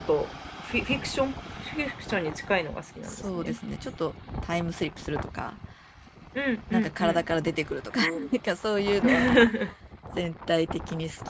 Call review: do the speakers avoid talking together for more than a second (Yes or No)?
Yes